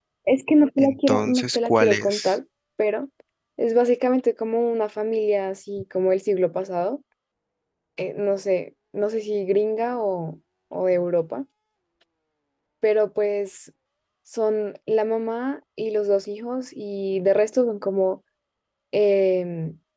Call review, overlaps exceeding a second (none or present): present